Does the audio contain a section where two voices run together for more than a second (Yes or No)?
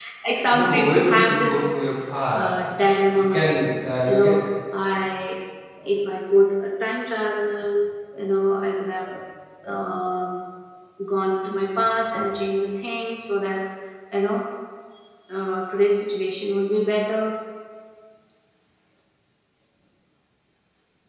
Yes